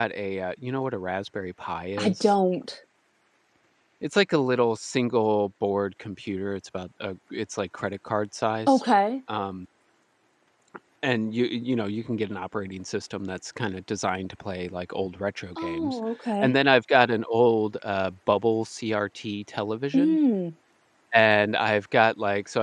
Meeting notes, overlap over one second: none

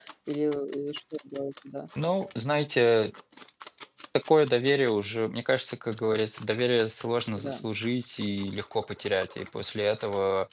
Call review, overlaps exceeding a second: none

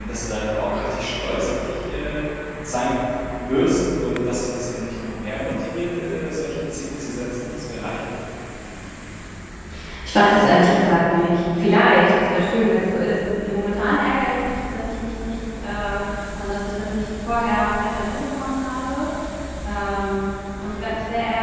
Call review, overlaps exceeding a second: none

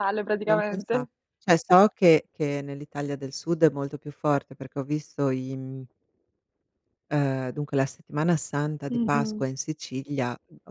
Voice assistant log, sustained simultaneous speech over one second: none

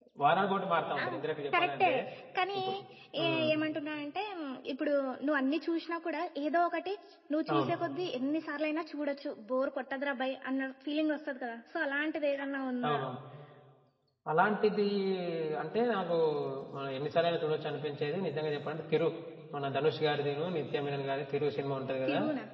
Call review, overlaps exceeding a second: none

